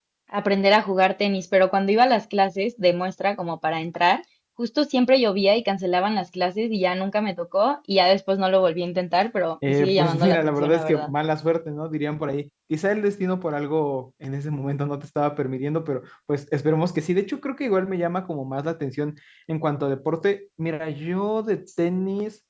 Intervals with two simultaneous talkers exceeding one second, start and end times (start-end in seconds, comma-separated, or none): 9.7-11.1